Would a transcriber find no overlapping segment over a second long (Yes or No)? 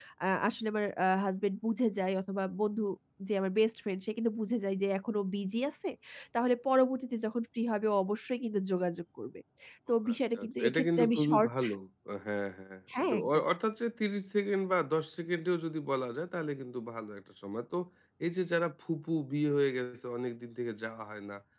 No